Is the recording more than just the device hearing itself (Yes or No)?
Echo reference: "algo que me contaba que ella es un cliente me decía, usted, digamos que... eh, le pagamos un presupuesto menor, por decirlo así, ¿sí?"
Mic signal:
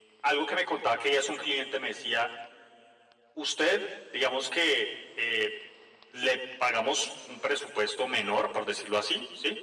No